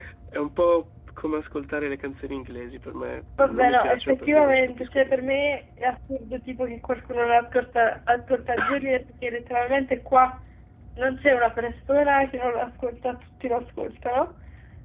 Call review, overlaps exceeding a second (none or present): present